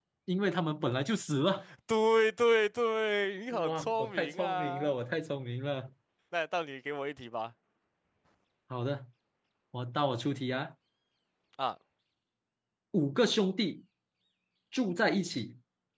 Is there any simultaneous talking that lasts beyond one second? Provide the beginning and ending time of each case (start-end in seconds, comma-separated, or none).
3.6-4.9